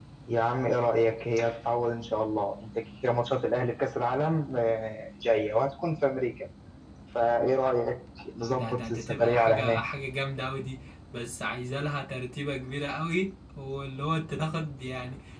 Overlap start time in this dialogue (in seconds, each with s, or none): 8.4 s